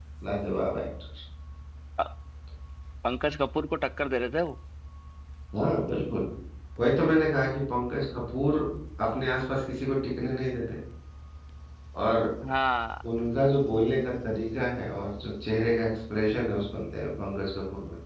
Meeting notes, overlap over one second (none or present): none